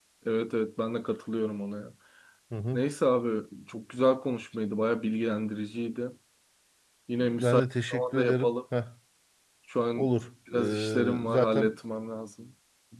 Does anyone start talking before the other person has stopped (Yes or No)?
Yes